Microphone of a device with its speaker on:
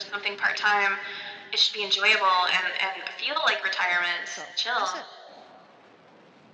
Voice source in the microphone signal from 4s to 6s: both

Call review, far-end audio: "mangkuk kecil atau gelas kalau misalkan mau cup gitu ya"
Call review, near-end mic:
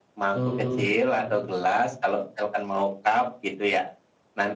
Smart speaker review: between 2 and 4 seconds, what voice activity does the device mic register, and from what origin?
echo only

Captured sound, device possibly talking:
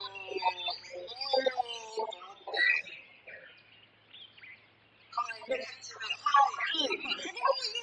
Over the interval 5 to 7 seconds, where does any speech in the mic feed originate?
echo only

